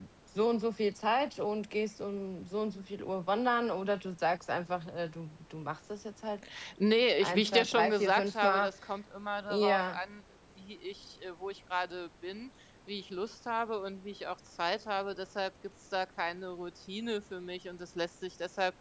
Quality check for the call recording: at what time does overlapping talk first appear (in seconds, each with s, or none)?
7.2 s